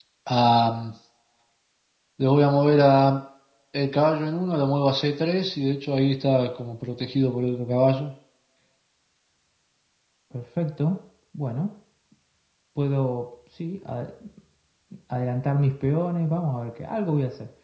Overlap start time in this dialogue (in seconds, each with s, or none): none